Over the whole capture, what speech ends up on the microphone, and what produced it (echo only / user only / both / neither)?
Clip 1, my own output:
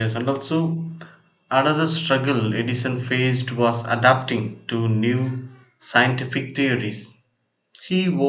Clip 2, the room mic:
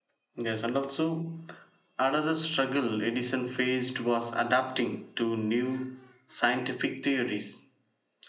echo only